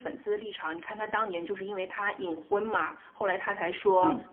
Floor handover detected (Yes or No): No